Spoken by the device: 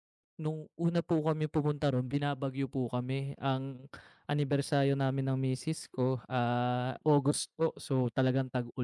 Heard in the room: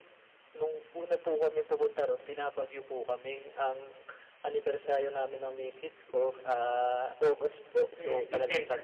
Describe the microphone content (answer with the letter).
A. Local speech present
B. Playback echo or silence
A